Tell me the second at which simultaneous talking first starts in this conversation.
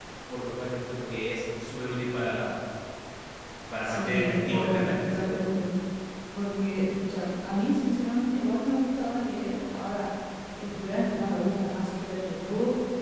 3.8 s

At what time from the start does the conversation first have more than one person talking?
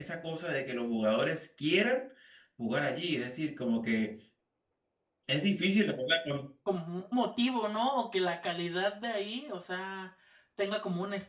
none

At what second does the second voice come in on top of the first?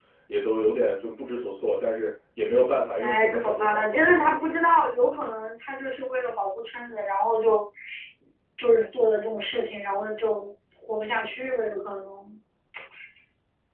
3.0 s

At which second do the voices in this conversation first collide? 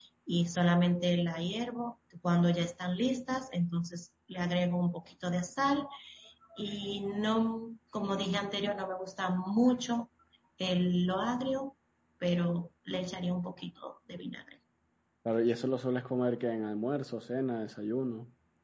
none

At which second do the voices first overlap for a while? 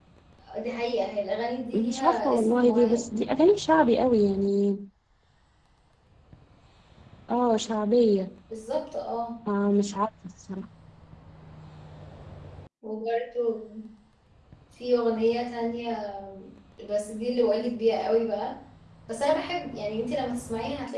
1.7 s

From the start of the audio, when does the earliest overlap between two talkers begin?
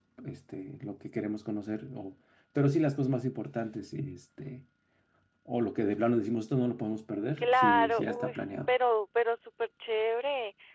7.4 s

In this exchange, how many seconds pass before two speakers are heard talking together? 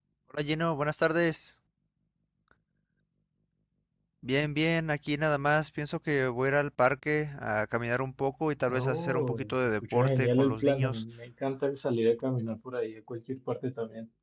8.7 s

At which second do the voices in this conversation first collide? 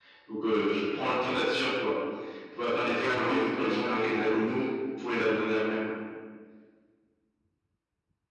3.0 s

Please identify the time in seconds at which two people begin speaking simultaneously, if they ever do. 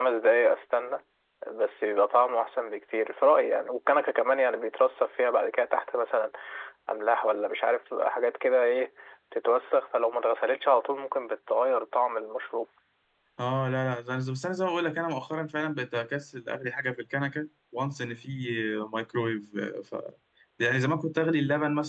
none

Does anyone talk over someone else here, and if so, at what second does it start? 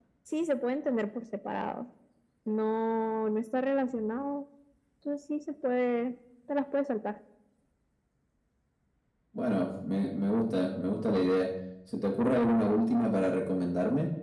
none

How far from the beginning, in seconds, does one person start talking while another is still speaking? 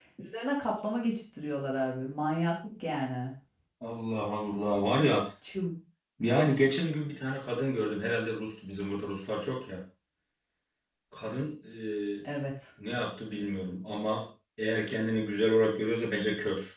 none

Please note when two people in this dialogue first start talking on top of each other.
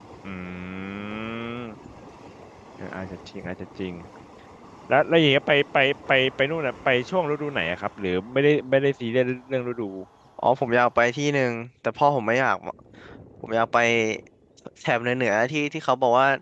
none

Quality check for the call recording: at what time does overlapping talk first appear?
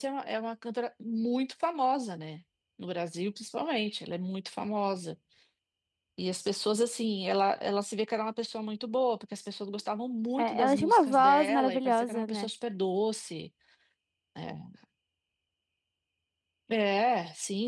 10.4 s

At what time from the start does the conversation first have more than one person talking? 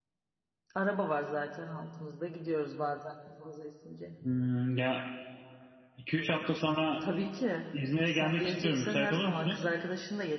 8.1 s

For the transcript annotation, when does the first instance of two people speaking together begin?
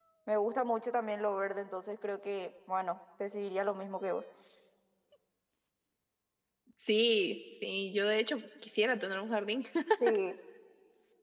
none

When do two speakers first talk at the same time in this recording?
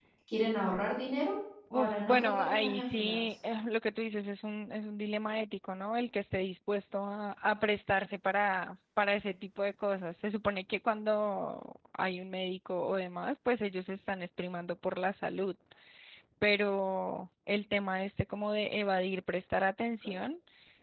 1.7 s

